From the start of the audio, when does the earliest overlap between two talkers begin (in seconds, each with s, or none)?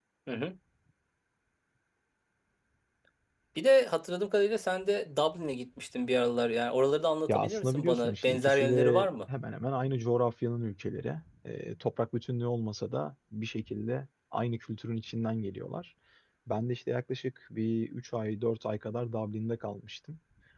7.3 s